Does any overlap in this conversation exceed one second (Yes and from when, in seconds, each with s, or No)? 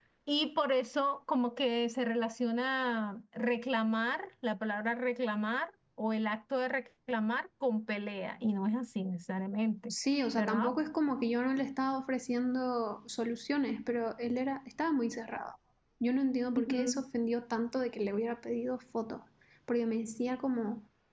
No